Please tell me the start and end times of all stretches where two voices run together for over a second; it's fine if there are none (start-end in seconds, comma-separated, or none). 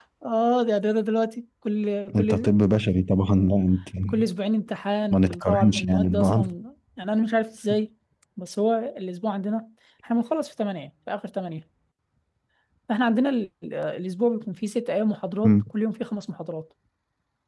5.1-6.4